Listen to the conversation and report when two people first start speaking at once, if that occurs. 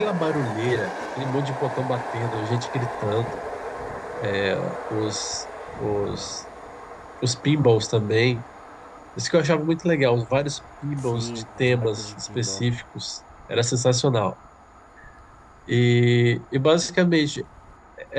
11.0 s

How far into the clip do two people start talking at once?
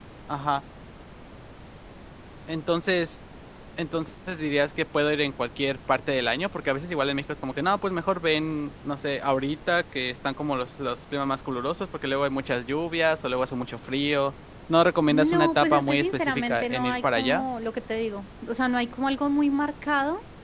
15.1 s

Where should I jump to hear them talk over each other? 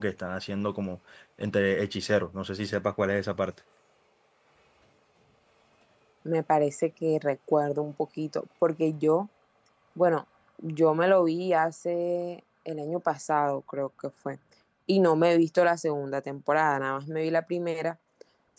none

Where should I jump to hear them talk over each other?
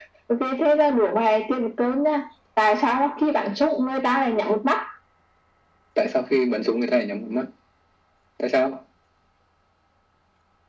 none

